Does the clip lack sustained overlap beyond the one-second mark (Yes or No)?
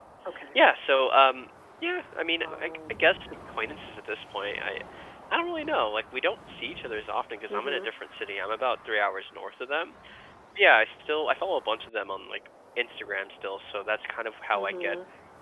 Yes